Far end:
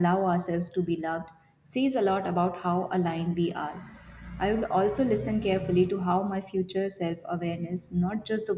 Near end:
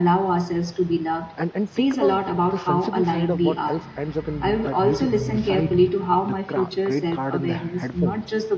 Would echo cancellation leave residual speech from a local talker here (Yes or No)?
Yes